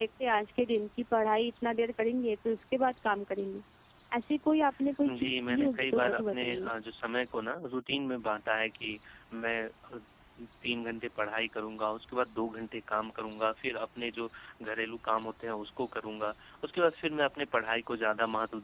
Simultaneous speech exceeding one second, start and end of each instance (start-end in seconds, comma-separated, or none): 5.0-6.7